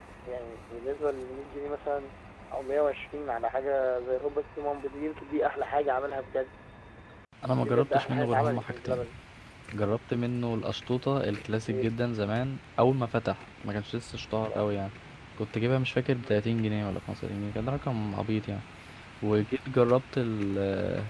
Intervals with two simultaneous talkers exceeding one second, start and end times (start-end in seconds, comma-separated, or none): 7.6-9.0